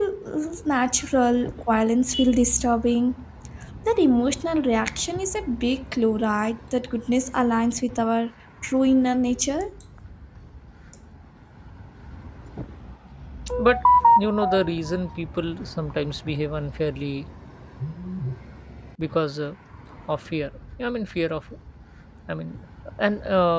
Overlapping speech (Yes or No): No